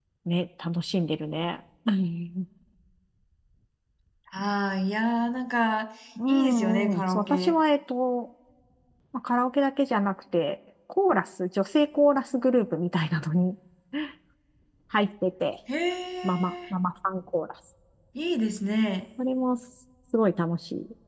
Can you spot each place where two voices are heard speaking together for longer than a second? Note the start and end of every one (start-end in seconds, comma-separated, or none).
6.3-7.5